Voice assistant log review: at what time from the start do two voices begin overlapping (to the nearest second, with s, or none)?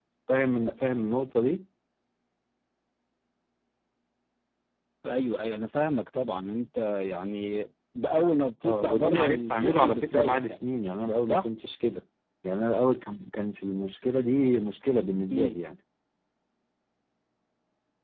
9 s